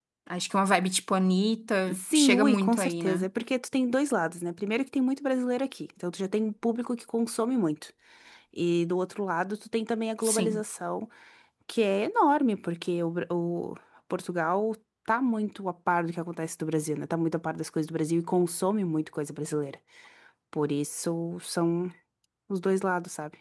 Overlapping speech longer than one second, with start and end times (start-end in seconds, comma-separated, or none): 1.9-3.3